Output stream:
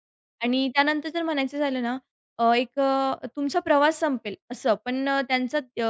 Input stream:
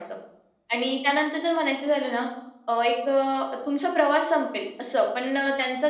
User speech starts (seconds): none

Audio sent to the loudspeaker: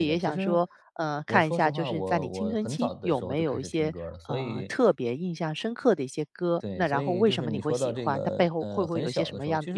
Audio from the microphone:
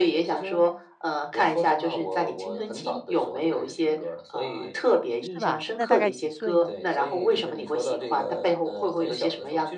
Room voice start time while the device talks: 5.2 s

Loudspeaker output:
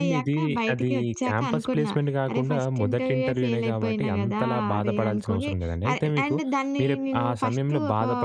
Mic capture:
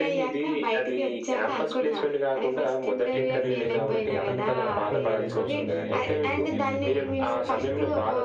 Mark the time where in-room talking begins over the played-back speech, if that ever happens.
3.2 s

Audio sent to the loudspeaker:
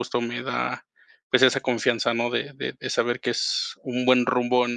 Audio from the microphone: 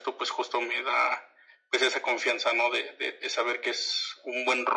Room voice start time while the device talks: none

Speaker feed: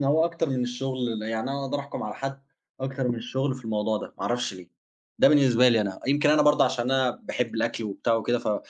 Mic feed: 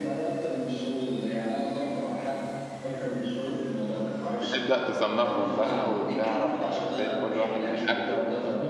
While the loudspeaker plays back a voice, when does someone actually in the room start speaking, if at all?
4.4 s

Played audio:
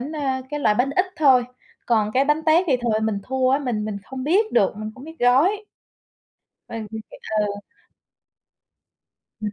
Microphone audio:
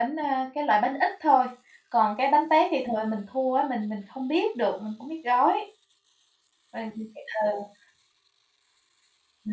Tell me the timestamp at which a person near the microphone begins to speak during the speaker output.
none

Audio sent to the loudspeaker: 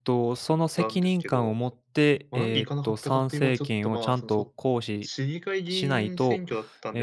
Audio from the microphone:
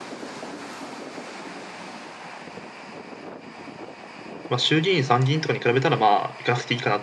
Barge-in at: 4.5 s

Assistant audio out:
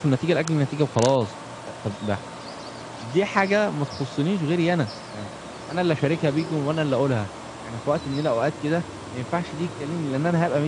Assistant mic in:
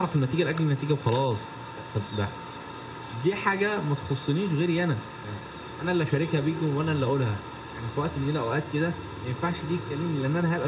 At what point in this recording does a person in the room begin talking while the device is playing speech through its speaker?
6.9 s

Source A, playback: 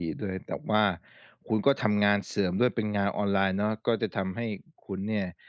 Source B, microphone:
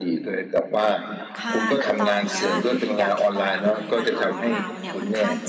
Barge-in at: 1.4 s

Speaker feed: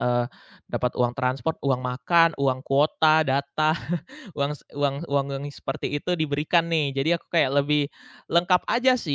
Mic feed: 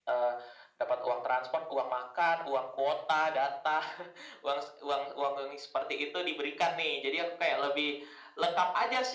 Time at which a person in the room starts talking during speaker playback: none

